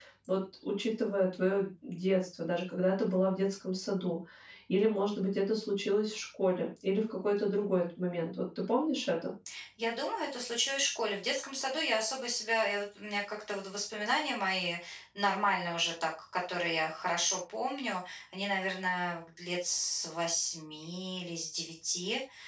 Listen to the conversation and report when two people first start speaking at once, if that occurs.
none

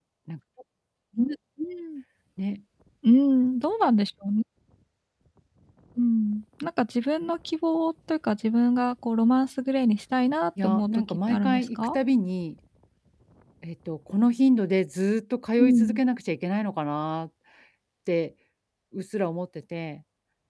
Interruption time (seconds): 10.6 s

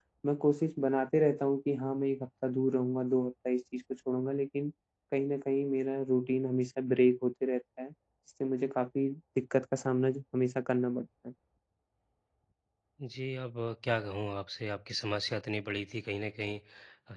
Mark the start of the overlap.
none

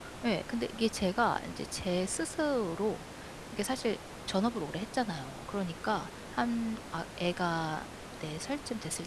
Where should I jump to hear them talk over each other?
none

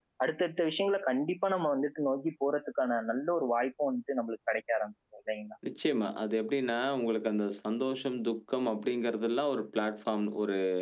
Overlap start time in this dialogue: none

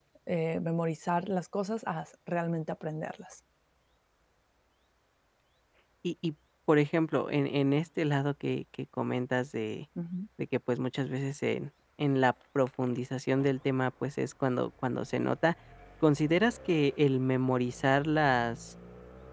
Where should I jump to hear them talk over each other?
none

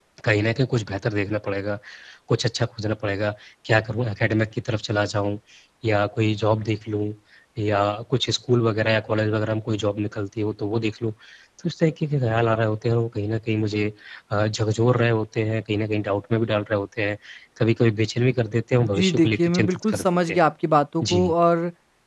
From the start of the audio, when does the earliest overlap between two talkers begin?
18.8 s

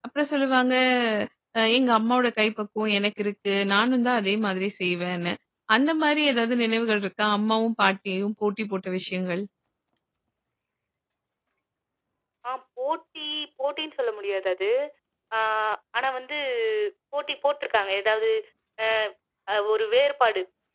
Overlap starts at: none

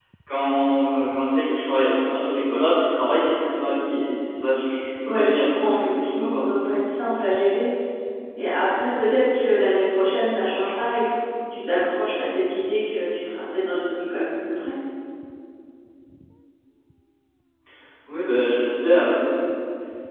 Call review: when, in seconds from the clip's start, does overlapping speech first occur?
5.0 s

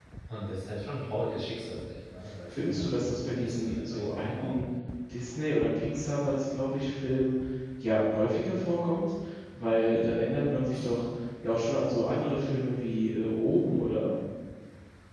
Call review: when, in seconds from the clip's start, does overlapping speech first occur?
2.5 s

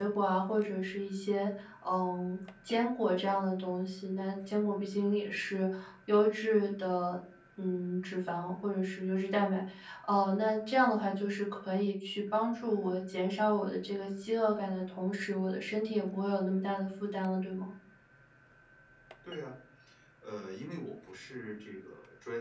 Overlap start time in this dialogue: none

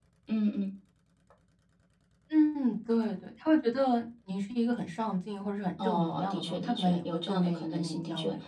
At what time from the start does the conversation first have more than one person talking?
5.8 s

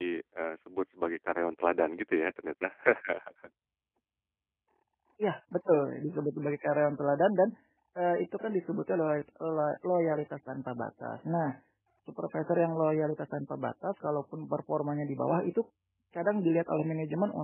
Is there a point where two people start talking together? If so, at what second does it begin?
none

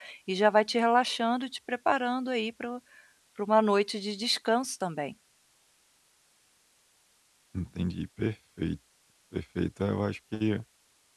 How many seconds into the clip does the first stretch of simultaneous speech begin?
none

